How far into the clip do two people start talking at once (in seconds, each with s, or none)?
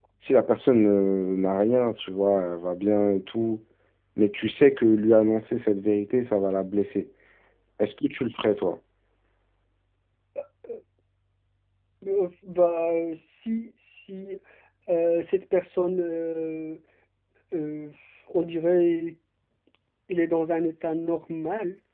none